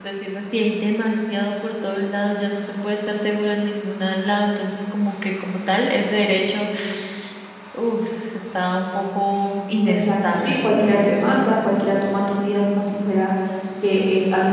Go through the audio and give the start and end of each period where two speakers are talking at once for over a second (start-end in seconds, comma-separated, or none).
9.9-11.4